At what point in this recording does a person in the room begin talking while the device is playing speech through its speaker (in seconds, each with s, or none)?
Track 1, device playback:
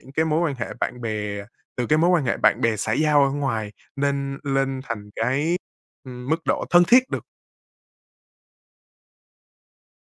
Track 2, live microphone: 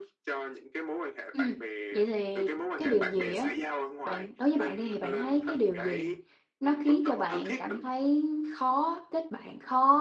1.3 s